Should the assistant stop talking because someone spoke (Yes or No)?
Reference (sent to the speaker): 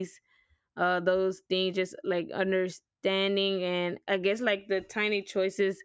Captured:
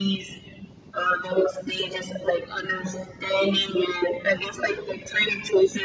No